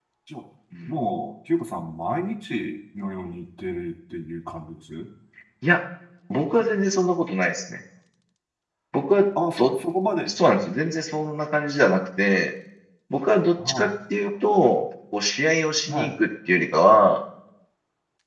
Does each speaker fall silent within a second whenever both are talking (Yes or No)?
Yes